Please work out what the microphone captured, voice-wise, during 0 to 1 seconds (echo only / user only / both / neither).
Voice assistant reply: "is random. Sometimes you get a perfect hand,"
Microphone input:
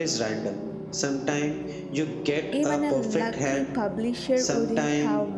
echo only